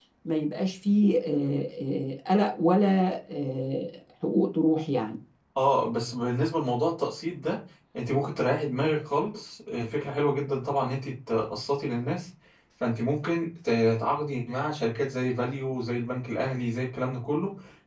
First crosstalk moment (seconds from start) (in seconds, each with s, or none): none